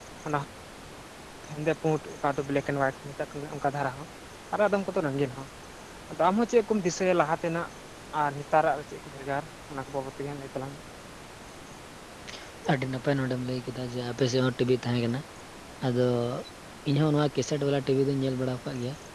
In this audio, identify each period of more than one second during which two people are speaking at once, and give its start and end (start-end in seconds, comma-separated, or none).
none